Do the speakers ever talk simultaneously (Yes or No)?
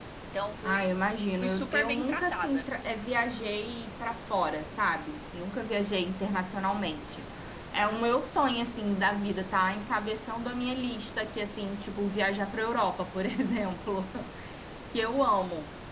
Yes